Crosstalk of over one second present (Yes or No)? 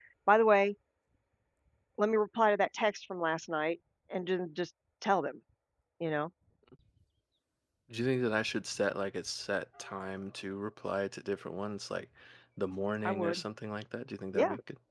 No